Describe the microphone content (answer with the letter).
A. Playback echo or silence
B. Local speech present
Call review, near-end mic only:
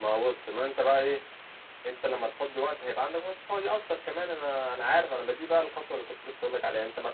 A